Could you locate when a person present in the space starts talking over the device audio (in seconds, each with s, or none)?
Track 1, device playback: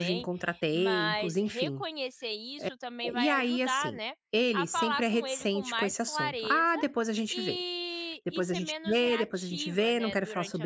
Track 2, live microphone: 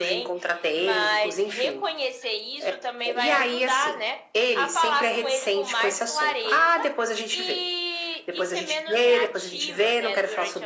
none